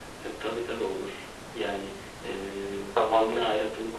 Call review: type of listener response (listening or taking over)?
listening